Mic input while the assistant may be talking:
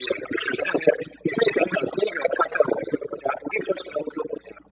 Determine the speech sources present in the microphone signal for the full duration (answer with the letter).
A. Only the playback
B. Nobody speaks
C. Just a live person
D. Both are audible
A